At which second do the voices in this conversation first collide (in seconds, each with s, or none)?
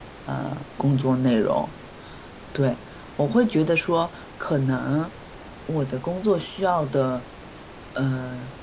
none